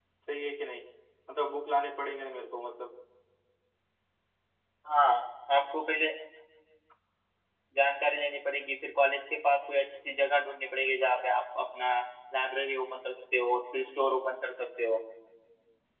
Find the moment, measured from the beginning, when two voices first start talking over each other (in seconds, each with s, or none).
none